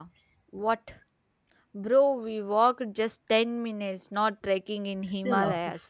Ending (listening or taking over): taking over